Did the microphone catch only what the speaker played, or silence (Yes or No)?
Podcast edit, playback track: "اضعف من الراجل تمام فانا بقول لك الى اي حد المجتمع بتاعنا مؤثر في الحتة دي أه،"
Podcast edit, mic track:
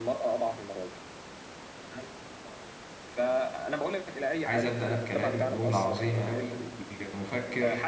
No